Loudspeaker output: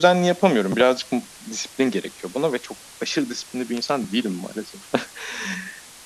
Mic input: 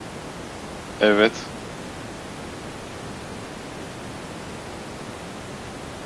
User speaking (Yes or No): Yes